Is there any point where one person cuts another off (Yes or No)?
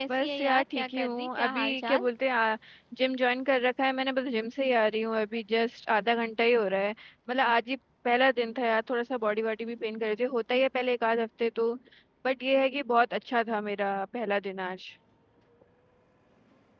Yes